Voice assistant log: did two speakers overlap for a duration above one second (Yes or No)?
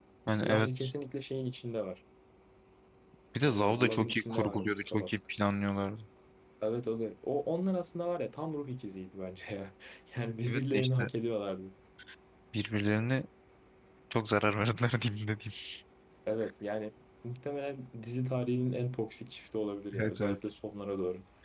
Yes